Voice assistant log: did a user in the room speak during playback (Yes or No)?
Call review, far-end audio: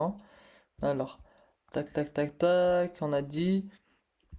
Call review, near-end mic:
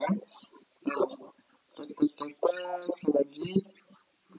No